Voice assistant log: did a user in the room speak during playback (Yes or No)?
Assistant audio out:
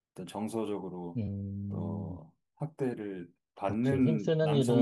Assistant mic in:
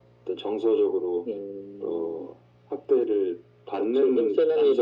No